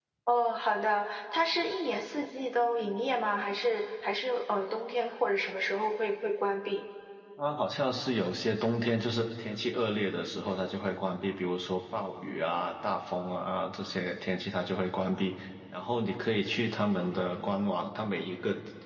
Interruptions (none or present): none